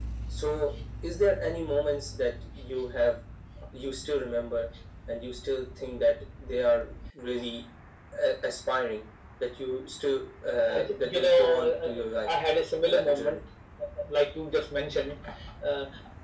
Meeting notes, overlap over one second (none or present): present